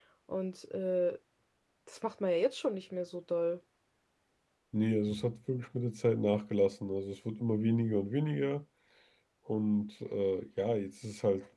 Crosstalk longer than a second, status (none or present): none